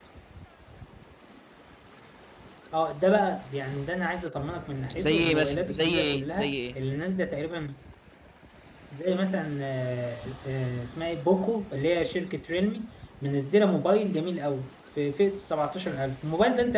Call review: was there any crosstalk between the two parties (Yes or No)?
Yes